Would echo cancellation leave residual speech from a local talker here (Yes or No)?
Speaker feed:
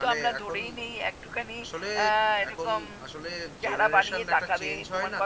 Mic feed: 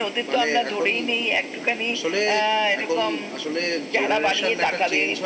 No